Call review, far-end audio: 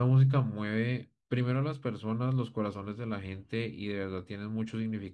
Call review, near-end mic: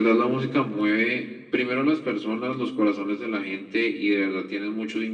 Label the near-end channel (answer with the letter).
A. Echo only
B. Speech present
A